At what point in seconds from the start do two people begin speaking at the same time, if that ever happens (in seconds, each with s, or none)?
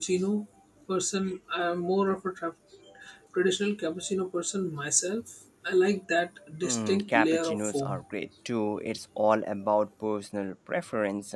6.6 s